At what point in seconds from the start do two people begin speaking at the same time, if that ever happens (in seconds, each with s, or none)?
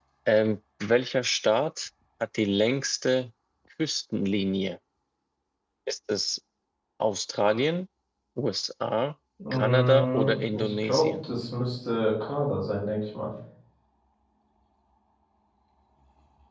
9.4 s